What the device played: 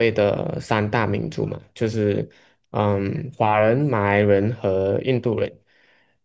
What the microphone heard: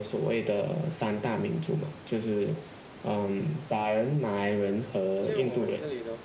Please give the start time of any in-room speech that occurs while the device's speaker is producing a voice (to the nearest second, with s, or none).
5 s